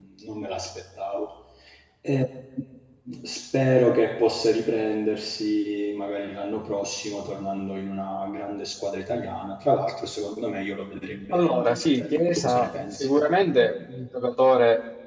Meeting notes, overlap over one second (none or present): present